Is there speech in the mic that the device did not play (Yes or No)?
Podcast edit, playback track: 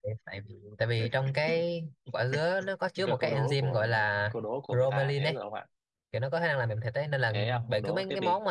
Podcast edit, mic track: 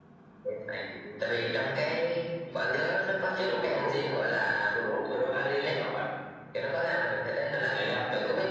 No